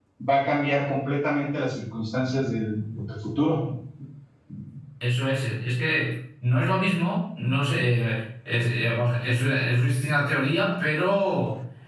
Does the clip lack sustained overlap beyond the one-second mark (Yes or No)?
Yes